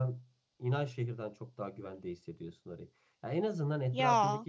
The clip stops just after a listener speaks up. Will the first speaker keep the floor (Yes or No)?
Yes